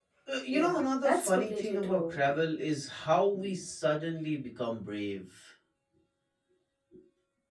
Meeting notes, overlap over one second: present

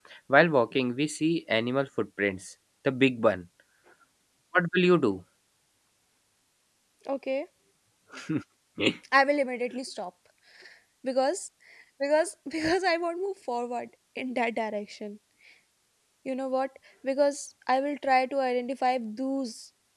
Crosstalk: none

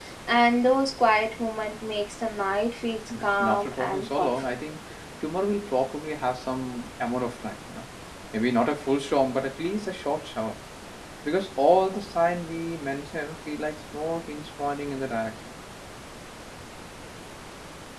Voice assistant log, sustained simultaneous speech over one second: present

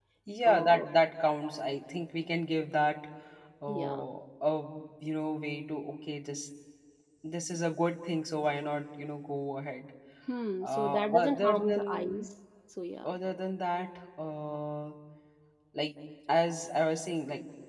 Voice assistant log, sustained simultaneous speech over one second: present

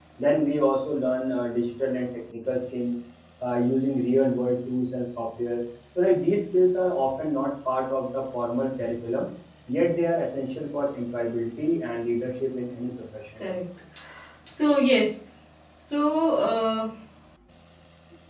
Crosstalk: none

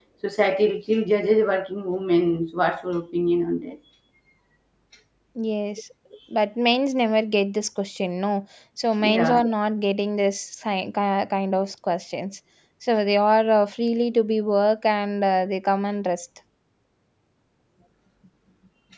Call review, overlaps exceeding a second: none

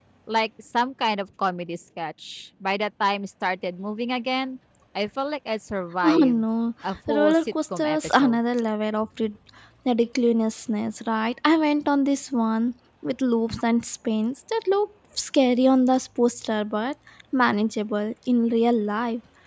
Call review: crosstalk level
present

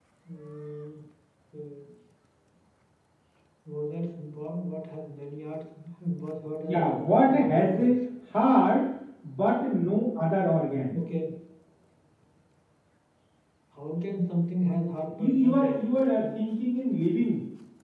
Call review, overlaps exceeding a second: present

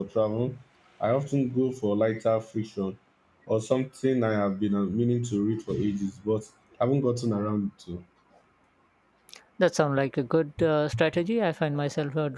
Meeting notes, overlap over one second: none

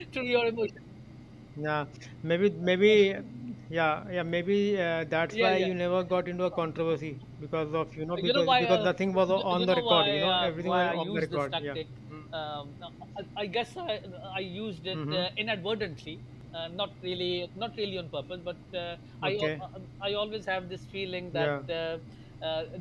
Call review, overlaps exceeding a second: present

